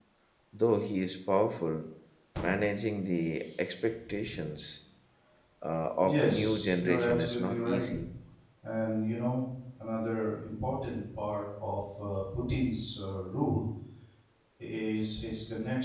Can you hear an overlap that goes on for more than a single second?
Yes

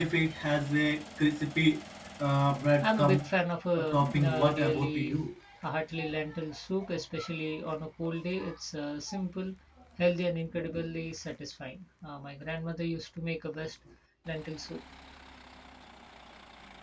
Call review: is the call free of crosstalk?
No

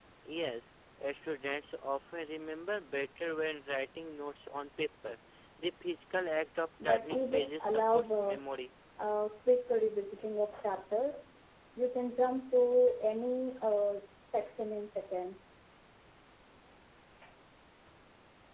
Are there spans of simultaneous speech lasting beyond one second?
Yes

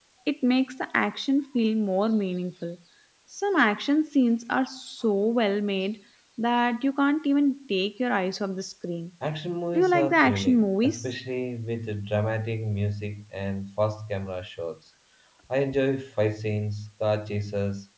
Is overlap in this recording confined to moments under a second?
No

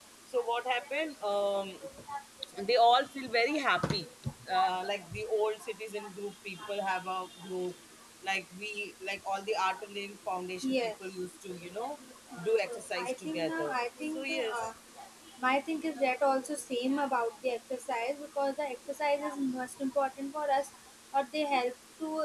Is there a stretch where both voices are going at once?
Yes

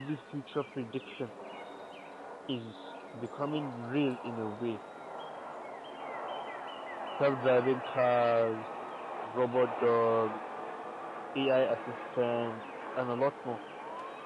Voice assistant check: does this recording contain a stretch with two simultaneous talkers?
No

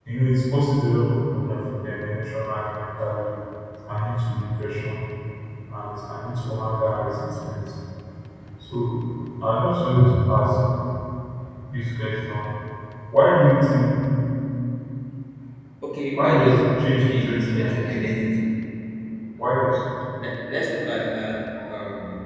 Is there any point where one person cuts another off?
Yes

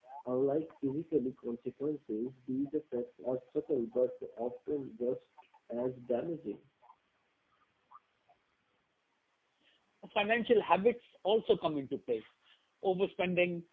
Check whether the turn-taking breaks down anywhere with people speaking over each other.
No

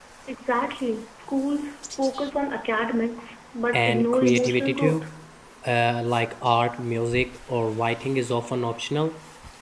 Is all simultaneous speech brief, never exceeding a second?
No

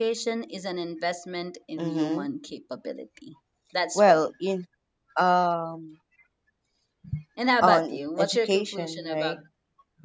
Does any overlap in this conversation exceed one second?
Yes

